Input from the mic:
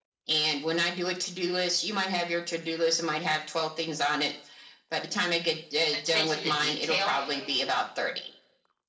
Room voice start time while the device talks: 5.9 s

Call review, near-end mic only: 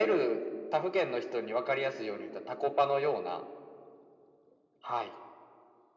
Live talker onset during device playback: none

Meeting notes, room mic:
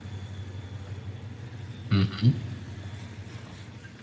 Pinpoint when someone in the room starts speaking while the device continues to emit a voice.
1.9 s

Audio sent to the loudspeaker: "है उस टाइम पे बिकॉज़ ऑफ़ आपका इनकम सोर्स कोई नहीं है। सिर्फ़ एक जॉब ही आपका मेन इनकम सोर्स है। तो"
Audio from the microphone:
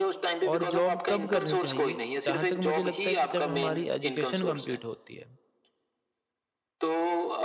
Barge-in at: 0.5 s

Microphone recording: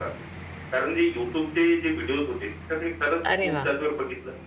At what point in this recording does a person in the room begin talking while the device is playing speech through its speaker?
3.3 s

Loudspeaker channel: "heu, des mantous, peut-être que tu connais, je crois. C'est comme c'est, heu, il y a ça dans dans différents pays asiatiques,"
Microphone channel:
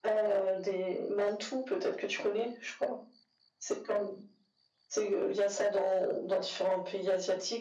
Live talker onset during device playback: none

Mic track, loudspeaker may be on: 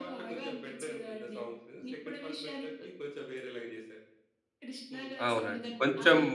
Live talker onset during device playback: 5.3 s

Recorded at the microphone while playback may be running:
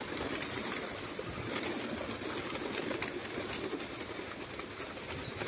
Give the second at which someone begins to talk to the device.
none

